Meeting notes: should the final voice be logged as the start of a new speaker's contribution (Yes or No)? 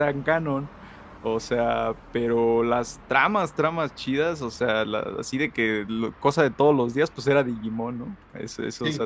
No